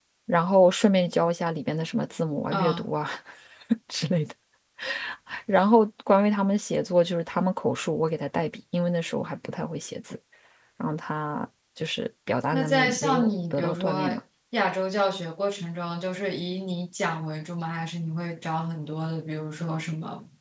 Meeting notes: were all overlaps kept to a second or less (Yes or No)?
No